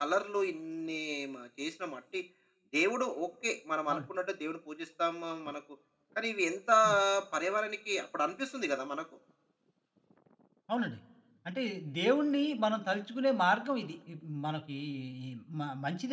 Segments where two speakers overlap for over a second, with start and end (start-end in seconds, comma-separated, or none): none